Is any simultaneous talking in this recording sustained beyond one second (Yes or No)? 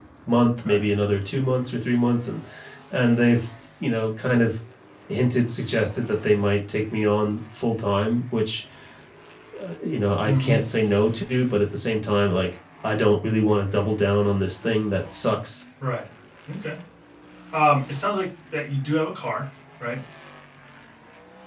No